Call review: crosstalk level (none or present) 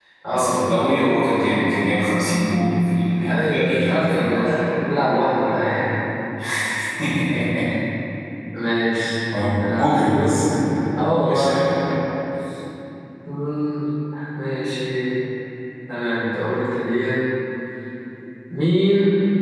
present